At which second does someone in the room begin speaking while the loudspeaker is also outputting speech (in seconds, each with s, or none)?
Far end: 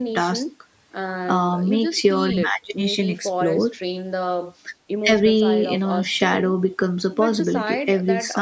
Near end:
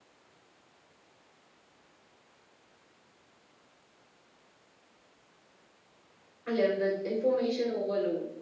6.5 s